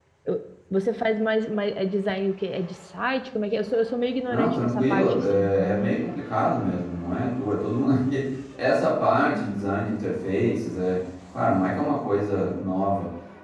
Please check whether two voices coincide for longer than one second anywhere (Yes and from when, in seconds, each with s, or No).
Yes, from 4.3 s